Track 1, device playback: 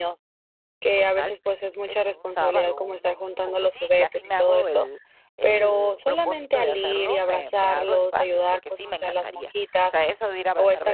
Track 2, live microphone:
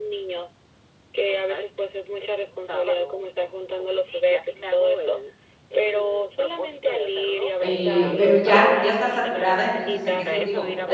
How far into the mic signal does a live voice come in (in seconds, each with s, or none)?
7.6 s